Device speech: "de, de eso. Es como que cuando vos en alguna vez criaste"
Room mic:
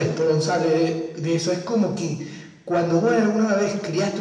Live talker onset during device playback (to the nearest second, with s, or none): none